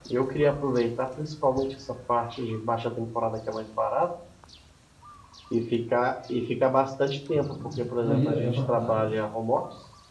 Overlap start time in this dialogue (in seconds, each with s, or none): 7.3 s